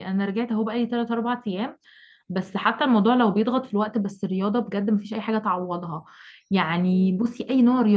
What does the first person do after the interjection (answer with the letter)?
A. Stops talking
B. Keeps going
B